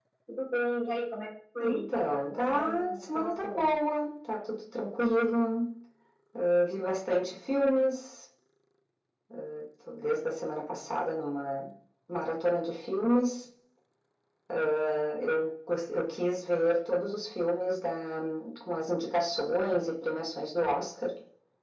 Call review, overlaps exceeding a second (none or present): present